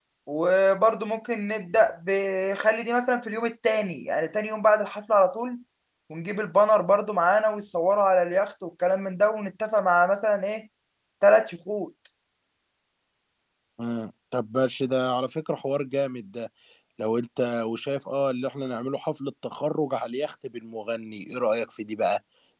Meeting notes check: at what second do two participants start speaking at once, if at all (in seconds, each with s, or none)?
none